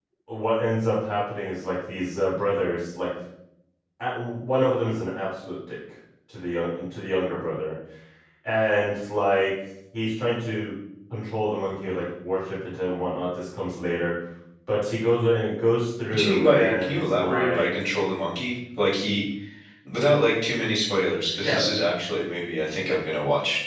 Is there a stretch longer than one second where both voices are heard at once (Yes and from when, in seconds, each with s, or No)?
Yes, from 16.1 s